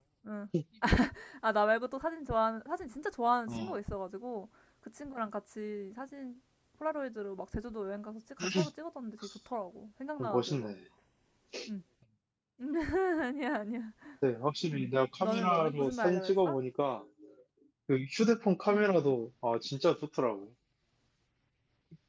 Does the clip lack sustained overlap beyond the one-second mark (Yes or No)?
No